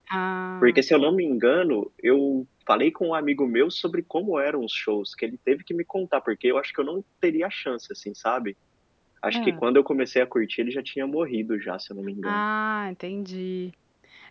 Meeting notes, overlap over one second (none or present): none